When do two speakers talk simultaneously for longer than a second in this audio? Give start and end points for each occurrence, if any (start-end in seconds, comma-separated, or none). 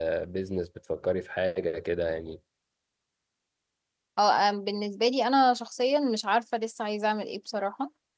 none